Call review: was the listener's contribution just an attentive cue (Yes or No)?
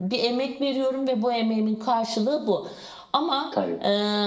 Yes